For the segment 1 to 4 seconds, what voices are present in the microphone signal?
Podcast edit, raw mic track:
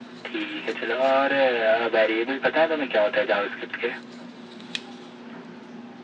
echo only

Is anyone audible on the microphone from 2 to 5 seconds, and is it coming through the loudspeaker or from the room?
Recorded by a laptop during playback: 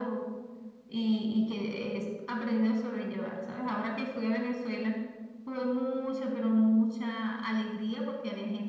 echo only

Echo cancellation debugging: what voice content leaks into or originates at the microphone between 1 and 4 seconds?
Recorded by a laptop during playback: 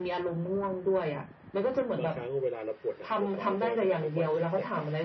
both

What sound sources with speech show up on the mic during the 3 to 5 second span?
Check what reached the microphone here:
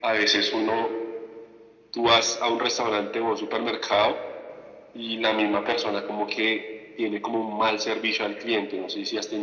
echo only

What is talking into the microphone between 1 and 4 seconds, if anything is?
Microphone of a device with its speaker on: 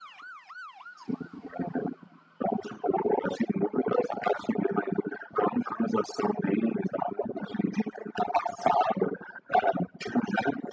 echo only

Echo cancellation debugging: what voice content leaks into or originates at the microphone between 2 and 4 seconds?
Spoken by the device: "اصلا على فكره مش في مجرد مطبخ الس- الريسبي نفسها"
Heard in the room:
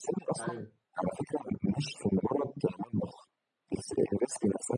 echo only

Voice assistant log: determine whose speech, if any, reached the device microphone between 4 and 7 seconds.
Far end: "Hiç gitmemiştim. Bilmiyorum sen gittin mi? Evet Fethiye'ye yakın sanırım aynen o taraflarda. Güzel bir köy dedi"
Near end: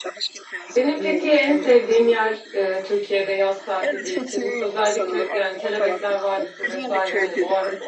both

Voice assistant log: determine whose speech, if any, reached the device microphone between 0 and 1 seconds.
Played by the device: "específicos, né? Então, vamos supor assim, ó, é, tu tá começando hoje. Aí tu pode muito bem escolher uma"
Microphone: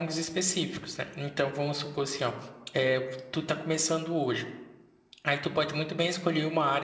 echo only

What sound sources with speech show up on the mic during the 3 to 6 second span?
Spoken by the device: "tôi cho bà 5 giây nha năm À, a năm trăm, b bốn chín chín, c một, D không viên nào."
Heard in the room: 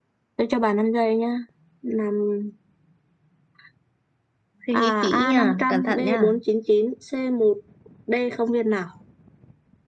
both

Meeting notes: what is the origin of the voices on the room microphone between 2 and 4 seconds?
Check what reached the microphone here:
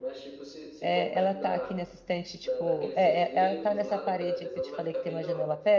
both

